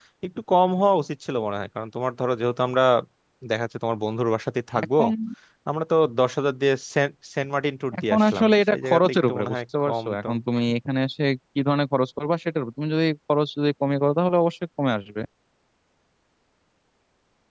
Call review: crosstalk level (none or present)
present